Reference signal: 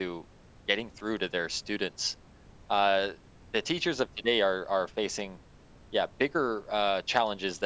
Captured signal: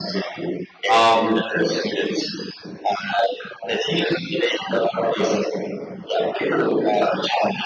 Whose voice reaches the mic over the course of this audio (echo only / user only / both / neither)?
both